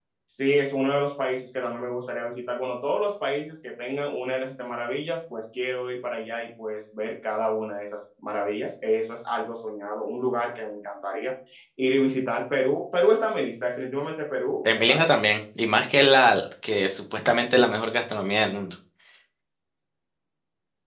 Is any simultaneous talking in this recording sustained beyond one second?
No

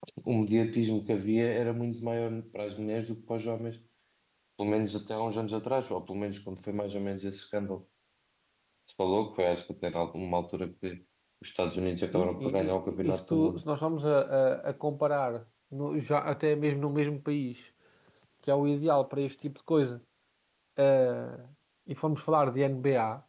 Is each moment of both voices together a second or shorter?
No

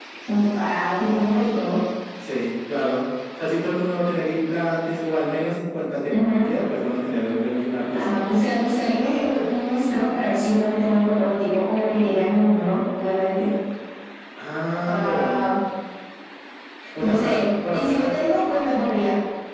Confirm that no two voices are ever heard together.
No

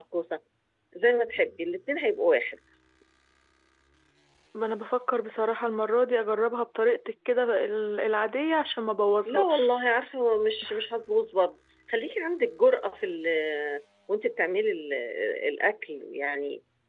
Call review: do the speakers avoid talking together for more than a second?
Yes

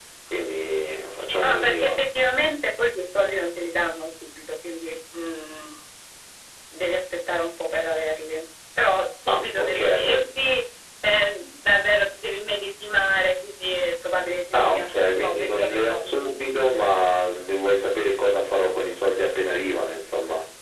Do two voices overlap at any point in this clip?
Yes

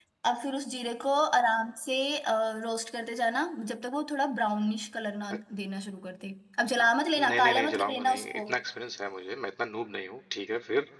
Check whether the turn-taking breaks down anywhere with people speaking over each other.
Yes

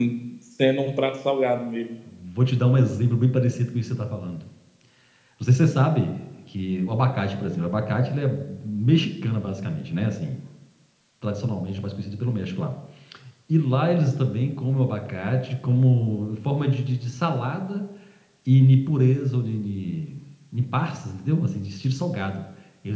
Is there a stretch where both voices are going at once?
No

